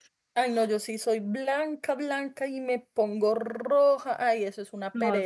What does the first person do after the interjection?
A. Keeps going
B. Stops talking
B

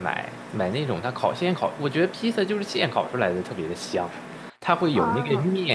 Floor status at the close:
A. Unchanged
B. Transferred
A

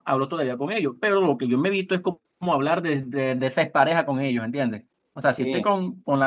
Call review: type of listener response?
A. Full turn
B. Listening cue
B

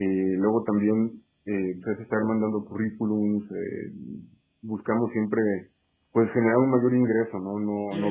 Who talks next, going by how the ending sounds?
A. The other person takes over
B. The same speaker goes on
A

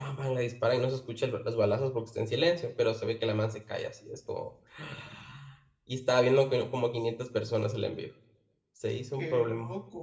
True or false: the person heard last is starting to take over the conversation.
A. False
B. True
B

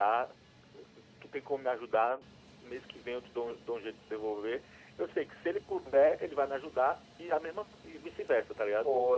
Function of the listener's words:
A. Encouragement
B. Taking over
B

